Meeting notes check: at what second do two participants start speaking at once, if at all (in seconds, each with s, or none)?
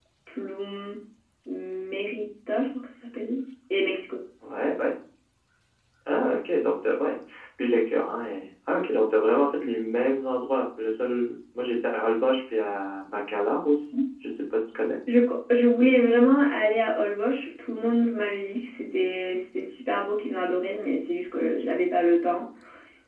none